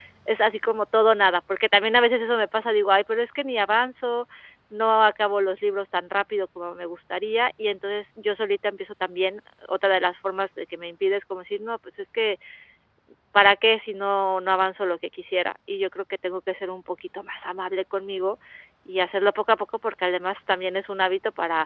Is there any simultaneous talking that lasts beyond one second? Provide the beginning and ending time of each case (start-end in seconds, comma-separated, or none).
none